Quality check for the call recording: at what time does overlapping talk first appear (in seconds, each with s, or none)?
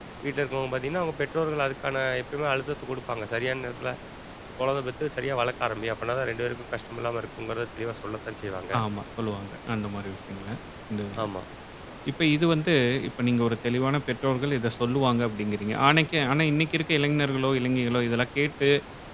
none